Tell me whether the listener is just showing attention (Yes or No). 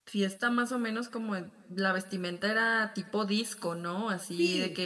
Yes